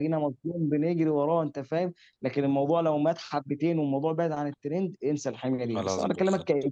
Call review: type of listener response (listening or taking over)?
listening